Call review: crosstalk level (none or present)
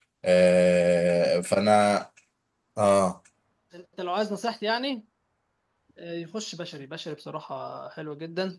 none